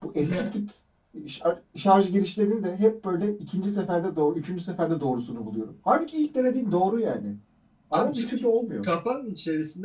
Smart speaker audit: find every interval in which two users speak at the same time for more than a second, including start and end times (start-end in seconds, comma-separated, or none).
none